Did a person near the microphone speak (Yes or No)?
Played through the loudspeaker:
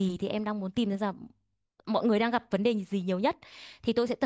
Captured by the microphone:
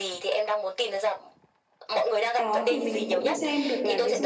Yes